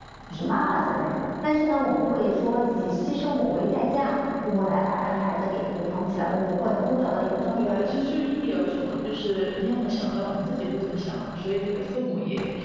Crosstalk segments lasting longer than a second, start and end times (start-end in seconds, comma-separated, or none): none